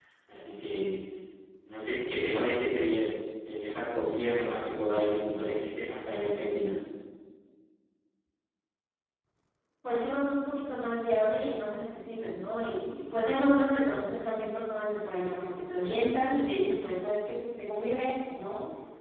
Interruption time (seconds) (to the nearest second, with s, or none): none